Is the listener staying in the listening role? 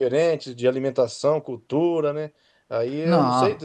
Yes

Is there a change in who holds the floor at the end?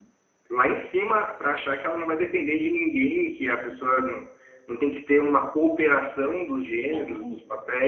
Yes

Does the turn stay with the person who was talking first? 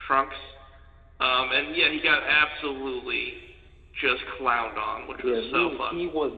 No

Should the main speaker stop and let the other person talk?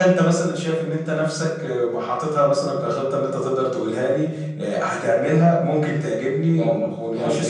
Yes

